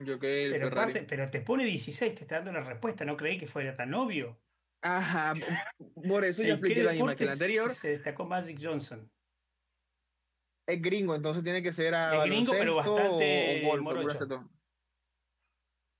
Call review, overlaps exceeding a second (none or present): present